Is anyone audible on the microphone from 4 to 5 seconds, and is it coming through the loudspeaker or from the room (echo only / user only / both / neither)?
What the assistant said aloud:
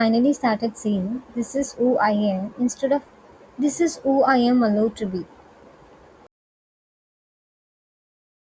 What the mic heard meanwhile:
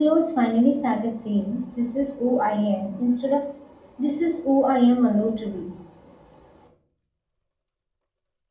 echo only